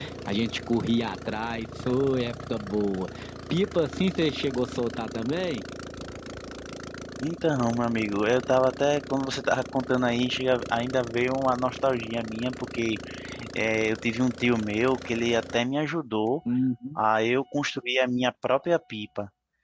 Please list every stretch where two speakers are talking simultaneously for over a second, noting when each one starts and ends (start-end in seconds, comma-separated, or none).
none